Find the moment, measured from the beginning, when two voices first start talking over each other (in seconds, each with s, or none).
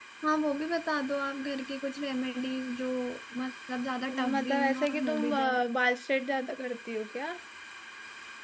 4.1 s